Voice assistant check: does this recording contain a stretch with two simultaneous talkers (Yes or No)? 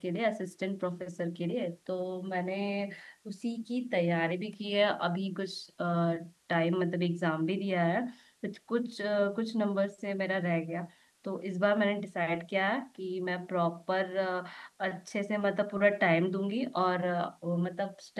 No